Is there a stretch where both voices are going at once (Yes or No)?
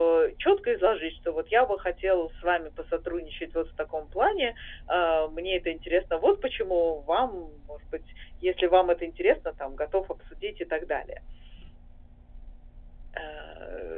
No